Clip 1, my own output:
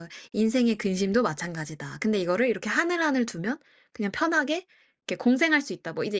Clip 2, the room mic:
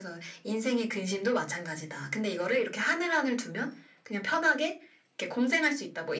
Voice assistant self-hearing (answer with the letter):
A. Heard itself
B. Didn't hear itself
A